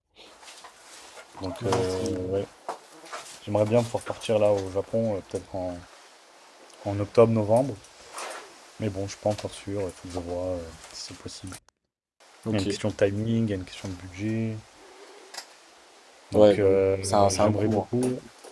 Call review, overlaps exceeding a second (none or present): present